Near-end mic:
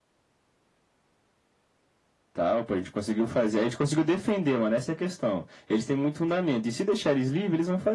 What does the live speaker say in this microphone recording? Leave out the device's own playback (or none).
none